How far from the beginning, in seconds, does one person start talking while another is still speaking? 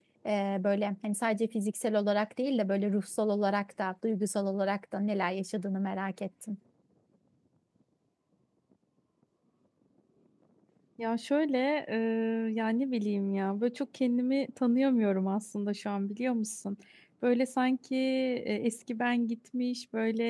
none

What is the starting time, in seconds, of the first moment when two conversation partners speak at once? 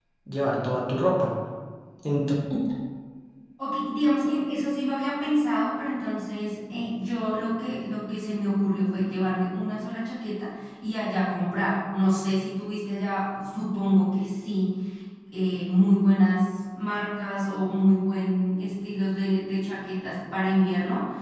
none

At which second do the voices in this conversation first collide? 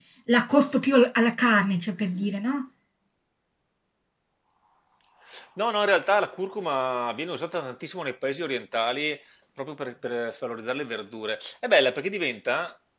none

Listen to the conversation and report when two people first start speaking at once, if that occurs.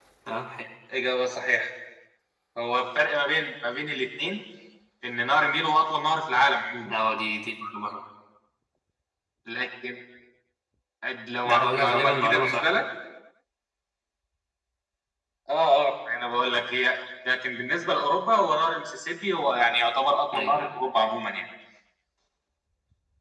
11.4 s

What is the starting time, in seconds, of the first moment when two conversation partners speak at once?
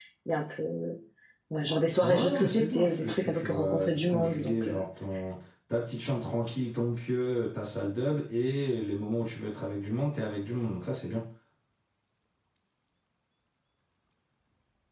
2.0 s

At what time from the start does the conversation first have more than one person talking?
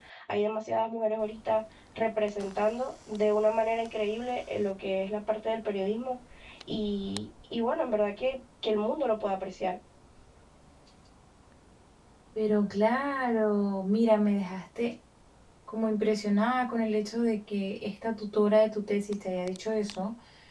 none

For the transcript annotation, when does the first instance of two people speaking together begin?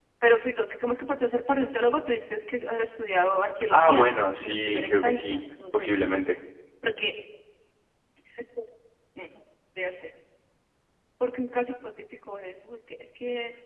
3.7 s

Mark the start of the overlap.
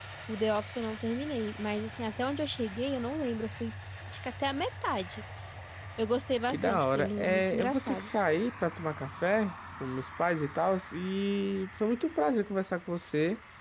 6.5 s

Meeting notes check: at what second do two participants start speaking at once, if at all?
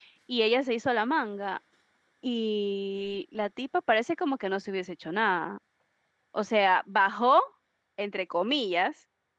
none

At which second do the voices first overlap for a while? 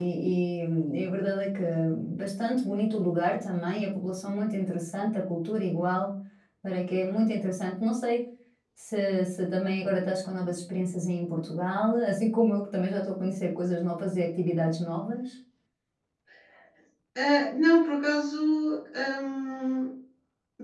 none

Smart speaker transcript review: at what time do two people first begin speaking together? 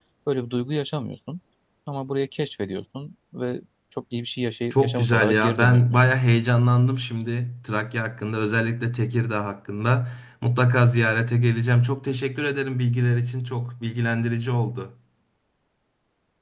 4.7 s

